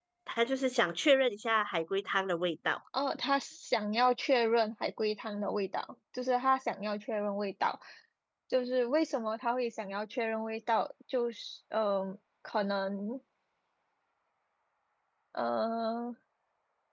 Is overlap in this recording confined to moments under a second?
Yes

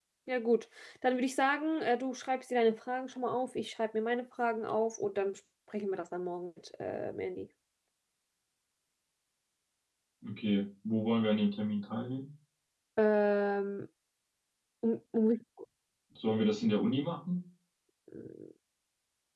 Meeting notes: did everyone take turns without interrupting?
Yes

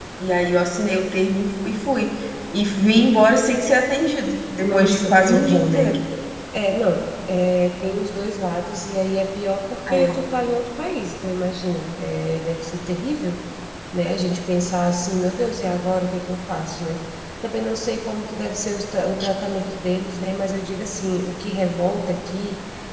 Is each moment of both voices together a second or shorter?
No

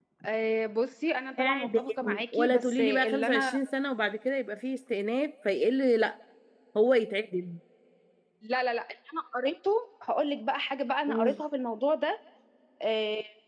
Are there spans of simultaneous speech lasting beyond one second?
Yes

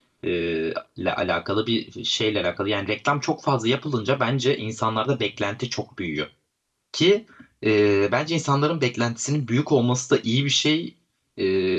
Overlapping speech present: No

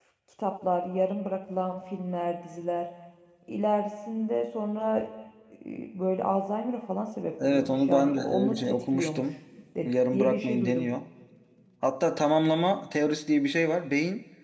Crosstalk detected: Yes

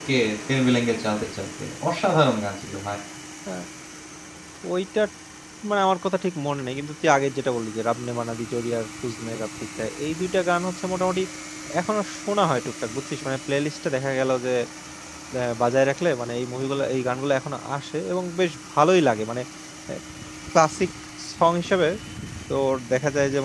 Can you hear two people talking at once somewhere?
No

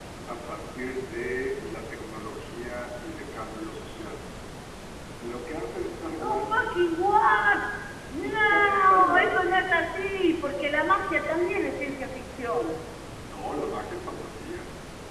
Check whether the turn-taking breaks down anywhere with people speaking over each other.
Yes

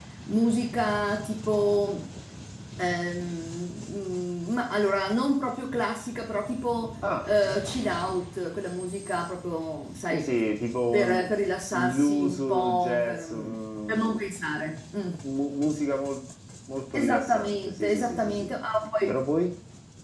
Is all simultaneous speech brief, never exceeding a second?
No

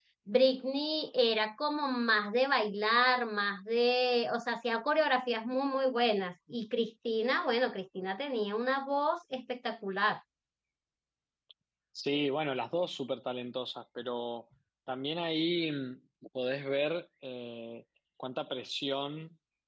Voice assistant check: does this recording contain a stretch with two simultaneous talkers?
No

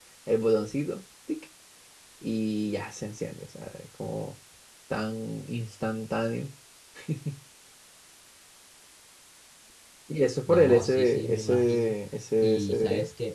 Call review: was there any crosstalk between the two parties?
Yes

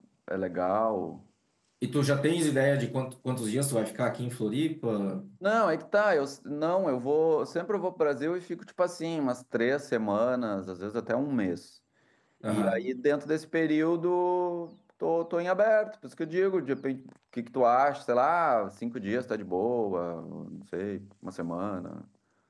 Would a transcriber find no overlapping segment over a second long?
Yes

